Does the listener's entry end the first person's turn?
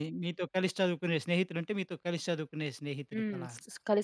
Yes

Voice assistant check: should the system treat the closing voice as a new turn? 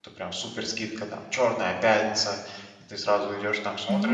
Yes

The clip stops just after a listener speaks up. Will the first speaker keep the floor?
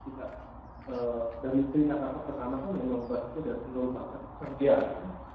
Yes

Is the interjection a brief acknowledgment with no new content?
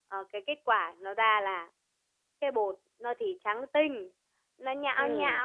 Yes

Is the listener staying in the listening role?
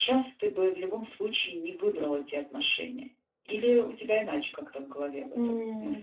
No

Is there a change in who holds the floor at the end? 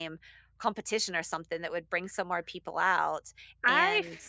Yes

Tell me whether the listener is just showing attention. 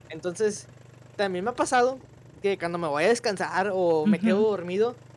Yes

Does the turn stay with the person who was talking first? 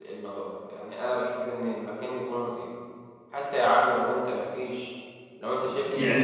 No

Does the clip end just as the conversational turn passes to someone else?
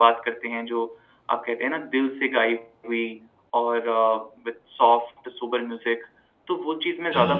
Yes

